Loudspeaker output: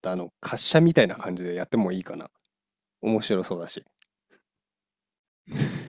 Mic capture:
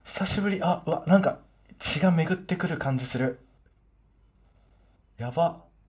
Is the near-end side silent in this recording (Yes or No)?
No